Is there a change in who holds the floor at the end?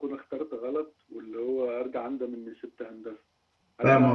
Yes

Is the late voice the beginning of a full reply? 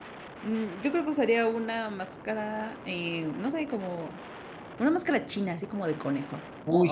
Yes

